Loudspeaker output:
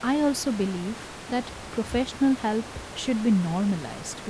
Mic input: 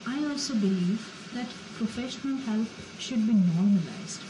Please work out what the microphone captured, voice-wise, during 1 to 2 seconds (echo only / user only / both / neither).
echo only